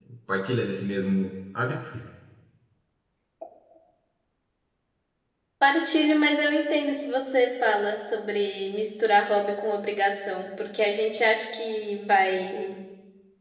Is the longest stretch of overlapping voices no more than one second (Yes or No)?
Yes